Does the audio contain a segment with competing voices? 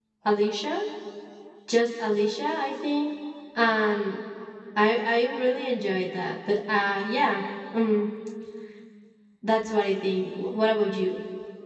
No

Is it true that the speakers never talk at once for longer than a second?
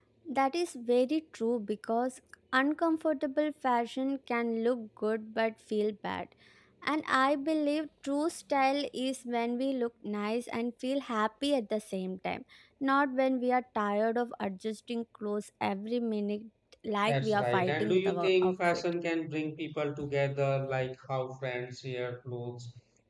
No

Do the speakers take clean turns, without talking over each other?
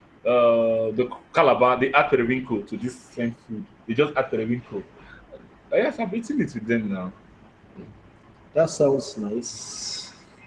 Yes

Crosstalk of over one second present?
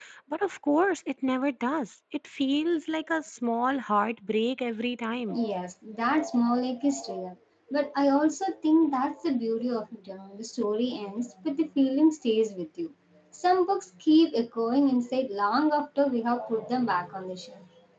No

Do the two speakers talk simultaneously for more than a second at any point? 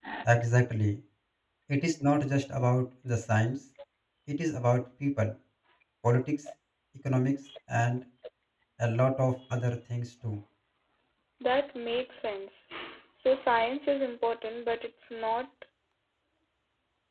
No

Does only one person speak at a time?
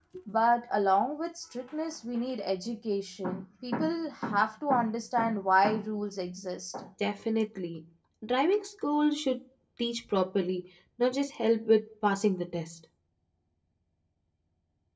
Yes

